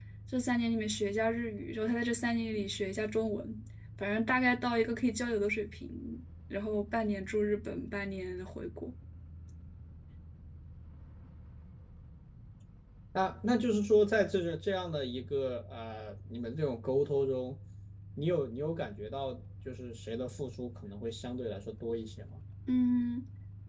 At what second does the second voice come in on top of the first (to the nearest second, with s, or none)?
none